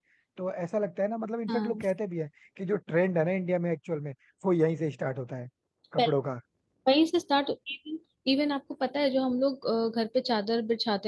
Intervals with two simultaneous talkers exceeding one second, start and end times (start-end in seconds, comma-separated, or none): none